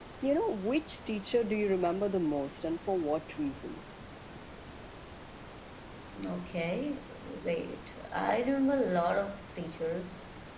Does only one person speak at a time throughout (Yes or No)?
Yes